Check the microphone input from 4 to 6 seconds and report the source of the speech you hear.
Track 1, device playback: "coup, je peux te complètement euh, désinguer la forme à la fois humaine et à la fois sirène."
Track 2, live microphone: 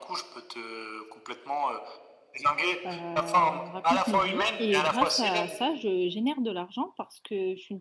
both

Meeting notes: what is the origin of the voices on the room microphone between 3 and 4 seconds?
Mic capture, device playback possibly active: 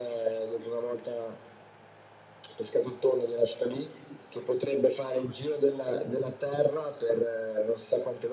echo only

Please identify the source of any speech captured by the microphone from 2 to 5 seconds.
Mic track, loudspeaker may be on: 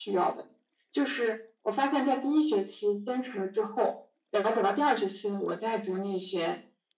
echo only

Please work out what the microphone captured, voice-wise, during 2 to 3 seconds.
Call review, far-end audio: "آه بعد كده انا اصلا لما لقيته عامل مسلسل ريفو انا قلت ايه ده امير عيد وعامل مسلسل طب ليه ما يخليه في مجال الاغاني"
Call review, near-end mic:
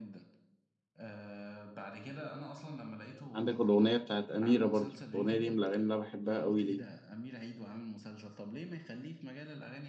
echo only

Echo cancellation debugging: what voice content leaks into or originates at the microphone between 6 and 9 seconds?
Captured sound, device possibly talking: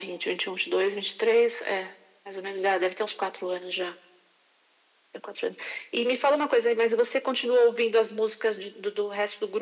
echo only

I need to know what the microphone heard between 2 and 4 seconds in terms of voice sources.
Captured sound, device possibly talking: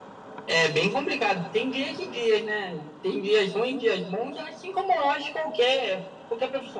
echo only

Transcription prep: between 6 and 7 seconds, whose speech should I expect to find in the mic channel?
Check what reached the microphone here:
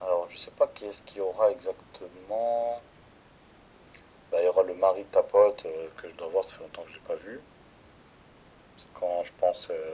echo only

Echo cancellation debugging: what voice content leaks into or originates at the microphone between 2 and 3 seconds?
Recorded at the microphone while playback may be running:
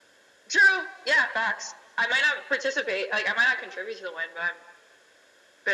echo only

